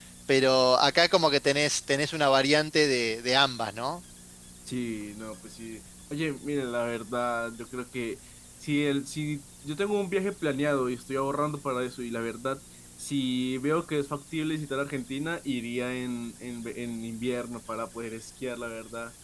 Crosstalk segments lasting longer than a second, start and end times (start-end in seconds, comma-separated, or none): none